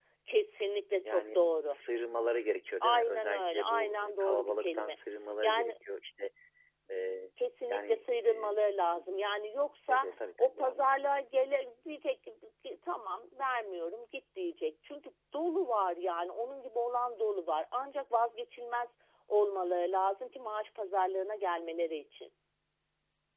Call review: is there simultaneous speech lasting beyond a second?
Yes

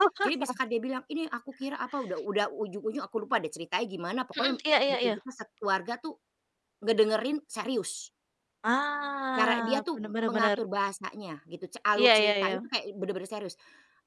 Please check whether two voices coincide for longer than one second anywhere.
Yes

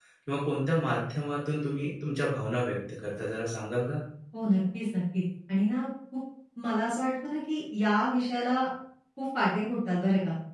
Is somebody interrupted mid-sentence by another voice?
No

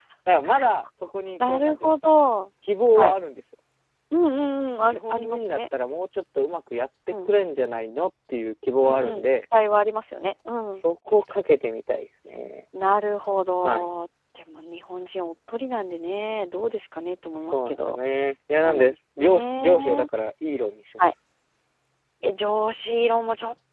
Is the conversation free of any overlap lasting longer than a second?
No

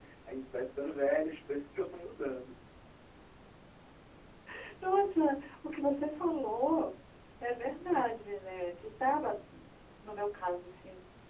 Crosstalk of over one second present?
No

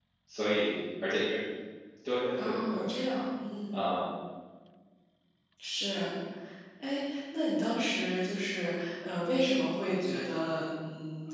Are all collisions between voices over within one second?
Yes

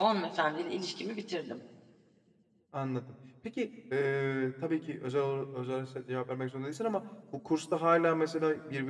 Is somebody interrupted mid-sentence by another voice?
No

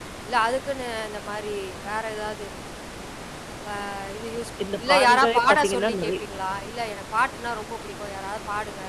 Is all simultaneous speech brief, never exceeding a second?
No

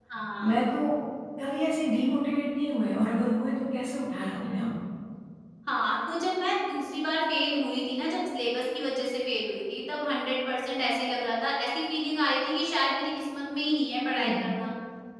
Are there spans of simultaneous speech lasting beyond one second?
No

